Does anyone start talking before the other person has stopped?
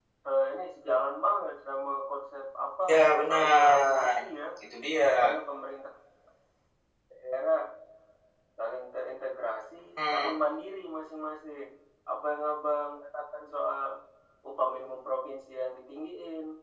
Yes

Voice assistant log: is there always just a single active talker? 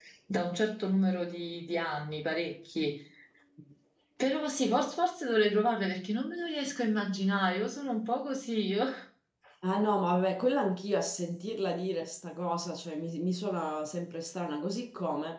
Yes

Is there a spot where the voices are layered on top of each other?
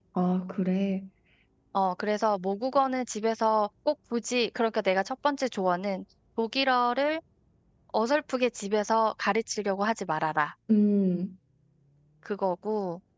No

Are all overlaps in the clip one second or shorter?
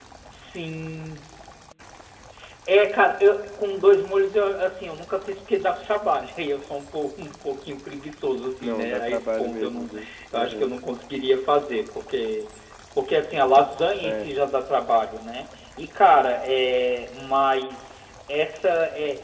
No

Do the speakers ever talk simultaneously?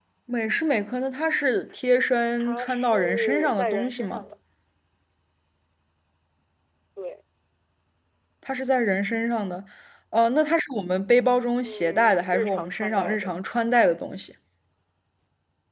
Yes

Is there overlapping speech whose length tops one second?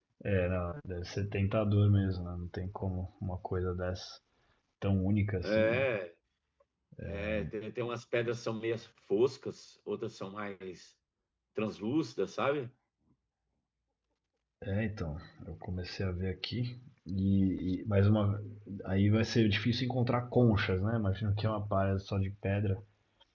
No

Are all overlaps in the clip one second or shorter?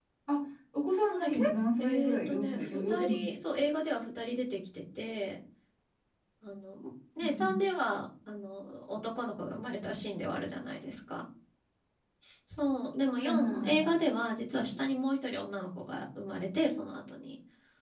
No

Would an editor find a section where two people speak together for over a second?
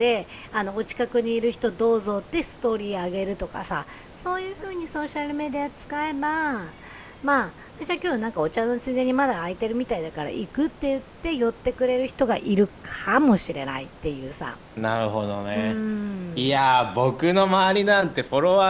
No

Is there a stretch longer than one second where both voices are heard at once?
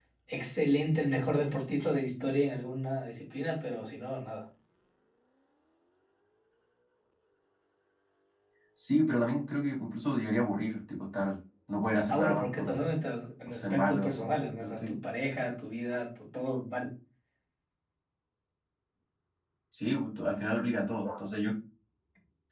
Yes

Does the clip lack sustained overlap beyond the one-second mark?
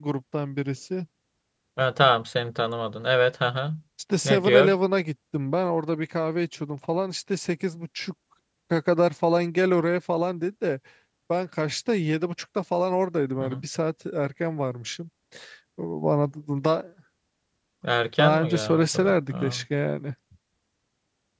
No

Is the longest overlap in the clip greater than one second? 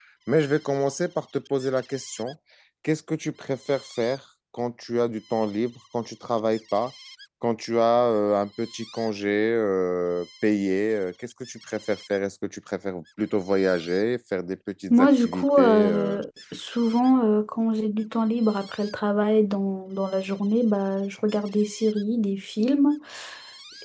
Yes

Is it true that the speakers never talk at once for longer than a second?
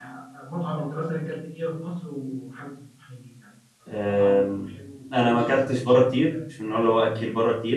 No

